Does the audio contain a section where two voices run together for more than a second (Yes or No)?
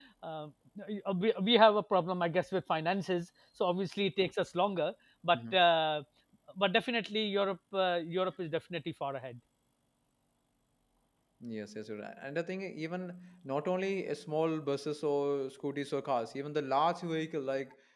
No